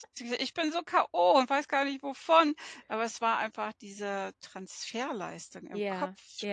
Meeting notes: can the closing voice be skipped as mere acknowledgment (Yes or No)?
No